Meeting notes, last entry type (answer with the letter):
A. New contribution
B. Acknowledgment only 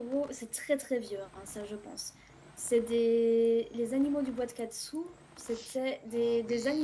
A